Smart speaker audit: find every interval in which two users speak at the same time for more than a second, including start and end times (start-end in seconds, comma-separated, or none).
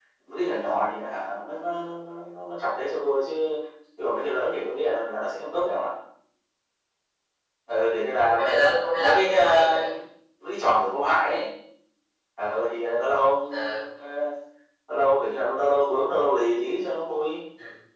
8.2-9.8